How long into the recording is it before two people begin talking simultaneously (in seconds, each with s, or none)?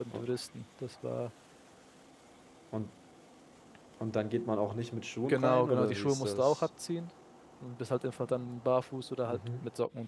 5.3 s